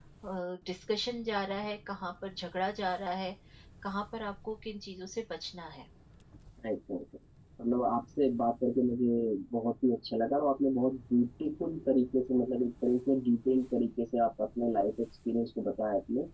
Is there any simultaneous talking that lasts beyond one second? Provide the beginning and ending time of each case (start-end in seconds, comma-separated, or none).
none